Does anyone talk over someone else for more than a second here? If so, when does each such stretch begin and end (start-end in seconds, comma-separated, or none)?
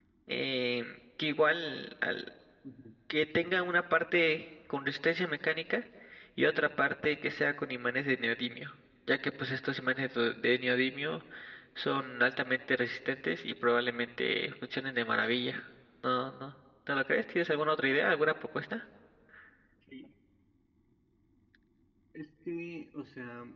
none